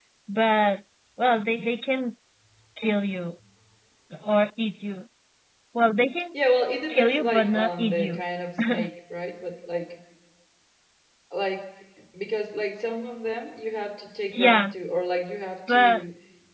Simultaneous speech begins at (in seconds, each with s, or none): 6.9 s